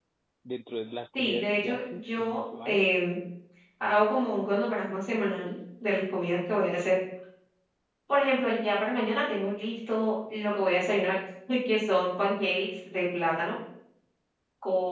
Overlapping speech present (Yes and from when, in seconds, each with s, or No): Yes, from 1.2 s